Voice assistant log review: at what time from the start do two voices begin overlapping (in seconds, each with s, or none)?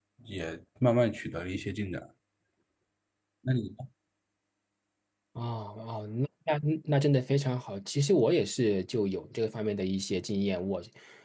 none